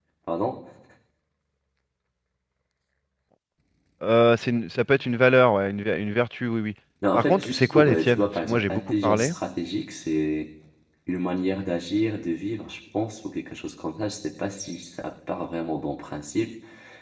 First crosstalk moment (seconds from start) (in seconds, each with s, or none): 7.1 s